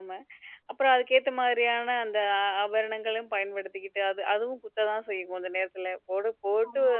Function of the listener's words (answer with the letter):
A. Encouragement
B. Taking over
A